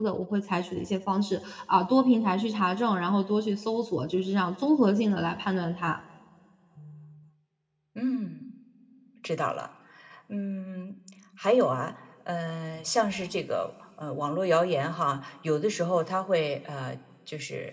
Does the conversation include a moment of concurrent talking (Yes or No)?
No